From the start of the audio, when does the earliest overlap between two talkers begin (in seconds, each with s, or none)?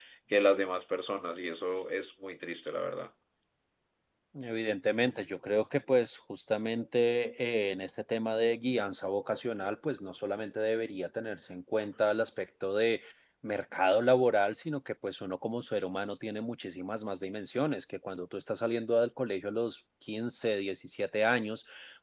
none